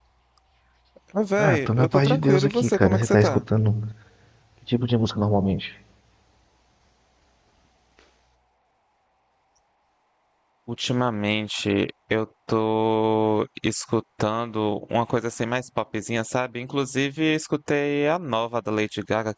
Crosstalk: present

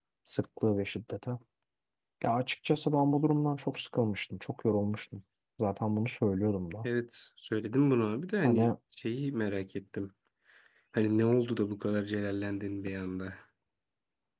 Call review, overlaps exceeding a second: none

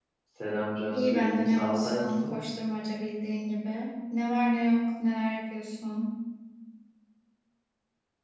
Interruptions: present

